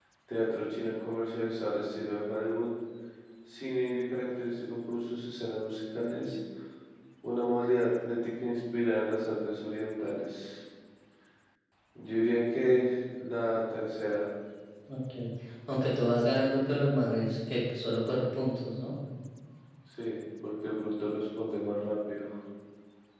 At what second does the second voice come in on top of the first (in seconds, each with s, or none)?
none